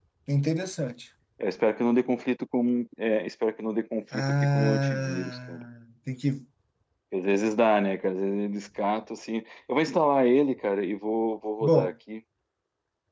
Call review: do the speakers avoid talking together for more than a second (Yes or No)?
No